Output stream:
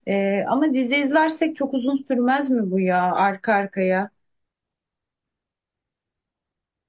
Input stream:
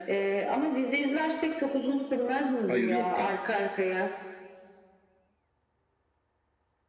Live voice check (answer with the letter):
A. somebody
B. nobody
A